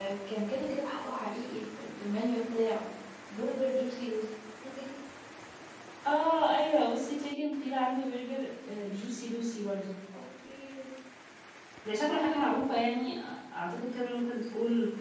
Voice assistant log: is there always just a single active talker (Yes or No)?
Yes